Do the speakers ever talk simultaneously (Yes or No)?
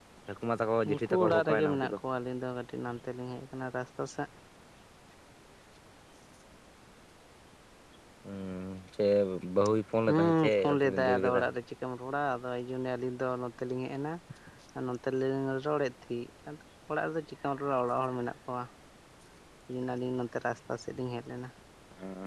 Yes